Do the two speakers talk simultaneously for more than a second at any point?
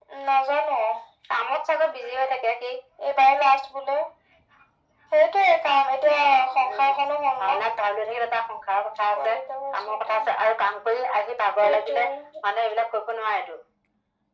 No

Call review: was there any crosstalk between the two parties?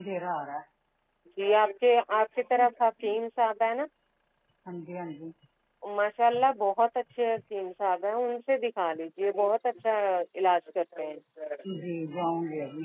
No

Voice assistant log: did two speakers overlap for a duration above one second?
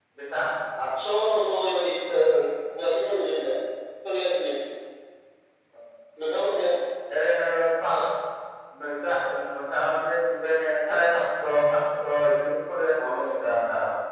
No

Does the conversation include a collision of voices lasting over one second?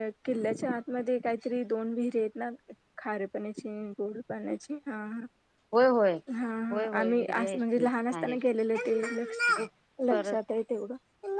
Yes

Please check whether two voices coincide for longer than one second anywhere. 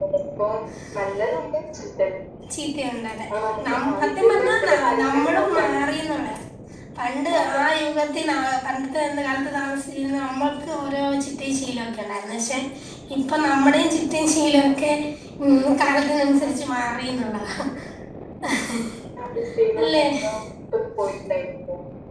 Yes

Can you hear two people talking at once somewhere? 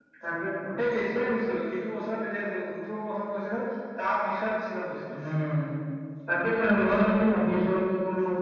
No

